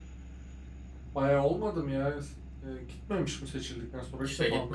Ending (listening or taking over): taking over